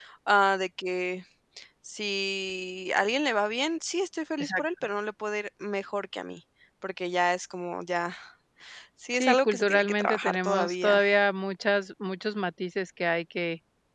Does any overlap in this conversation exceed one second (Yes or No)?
Yes